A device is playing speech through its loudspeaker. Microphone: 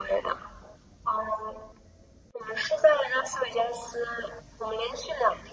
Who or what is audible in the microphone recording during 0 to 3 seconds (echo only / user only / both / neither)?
echo only